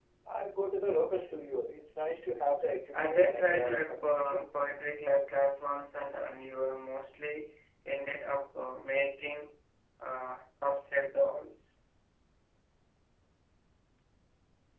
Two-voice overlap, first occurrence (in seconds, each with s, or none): 2.9 s